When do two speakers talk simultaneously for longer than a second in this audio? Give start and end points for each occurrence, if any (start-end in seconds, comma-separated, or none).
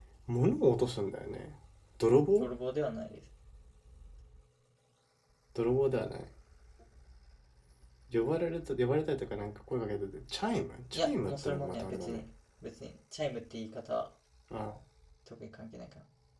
10.9-12.2